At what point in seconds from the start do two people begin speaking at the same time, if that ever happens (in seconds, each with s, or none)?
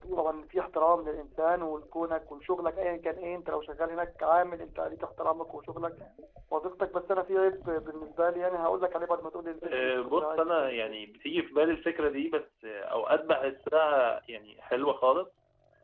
9.6 s